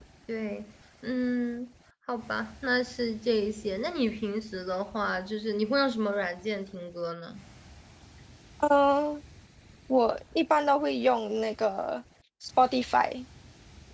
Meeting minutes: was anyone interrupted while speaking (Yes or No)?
No